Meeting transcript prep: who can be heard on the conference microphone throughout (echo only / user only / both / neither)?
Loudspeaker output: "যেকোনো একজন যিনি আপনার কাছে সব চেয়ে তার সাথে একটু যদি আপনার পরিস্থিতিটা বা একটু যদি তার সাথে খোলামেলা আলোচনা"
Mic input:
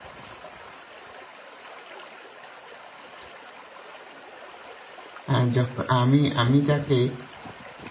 user only